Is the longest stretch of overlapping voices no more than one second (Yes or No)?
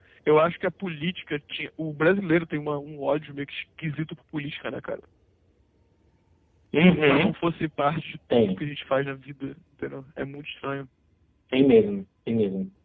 Yes